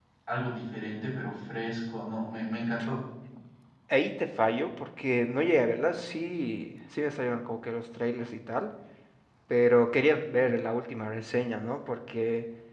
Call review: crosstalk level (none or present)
none